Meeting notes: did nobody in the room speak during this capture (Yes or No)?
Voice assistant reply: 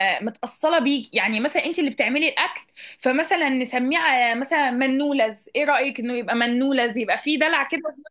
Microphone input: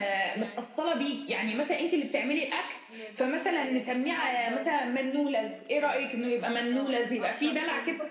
No